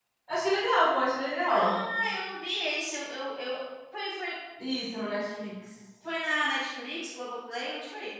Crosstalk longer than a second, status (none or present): none